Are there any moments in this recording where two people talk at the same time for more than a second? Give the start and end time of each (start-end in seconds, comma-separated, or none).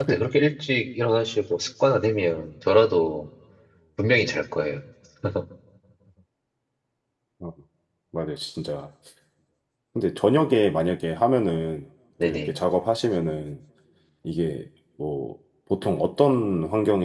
none